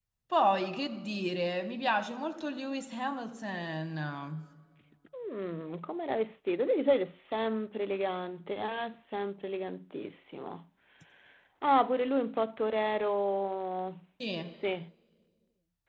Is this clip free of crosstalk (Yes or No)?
Yes